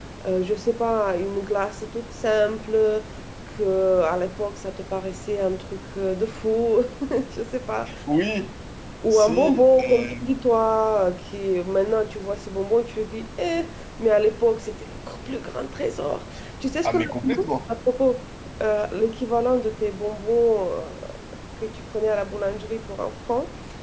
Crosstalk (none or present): present